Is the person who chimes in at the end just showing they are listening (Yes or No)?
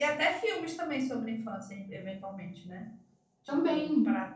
Yes